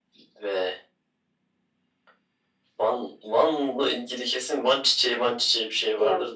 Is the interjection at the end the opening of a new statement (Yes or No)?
Yes